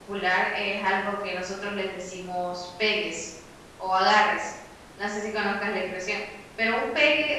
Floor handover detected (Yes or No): No